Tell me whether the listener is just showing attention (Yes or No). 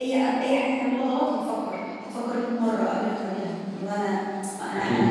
Yes